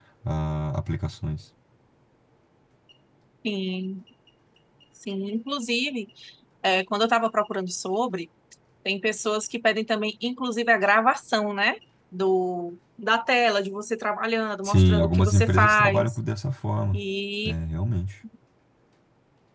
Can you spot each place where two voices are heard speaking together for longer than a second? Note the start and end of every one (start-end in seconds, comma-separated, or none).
14.6-16.2